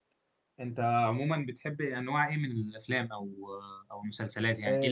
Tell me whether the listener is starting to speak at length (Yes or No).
Yes